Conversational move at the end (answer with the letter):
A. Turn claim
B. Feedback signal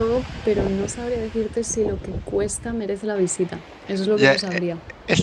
A